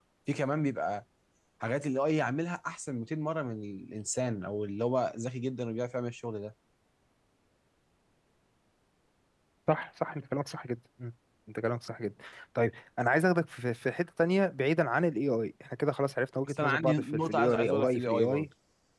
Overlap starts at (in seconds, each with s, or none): 16.5 s